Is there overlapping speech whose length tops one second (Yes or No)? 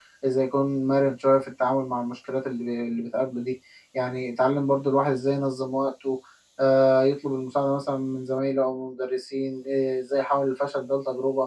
No